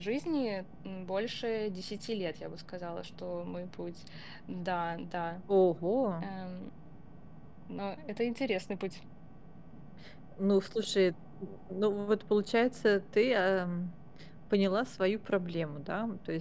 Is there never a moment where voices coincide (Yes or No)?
Yes